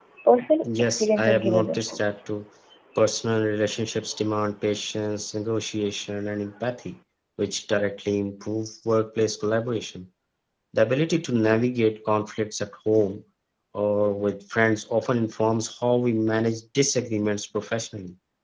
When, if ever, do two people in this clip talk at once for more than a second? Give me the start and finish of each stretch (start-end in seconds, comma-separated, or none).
0.7-2.2